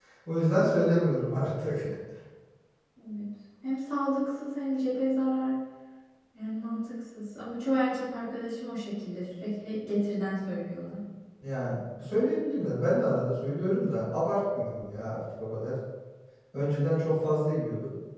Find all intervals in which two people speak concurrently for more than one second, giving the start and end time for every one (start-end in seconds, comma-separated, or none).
none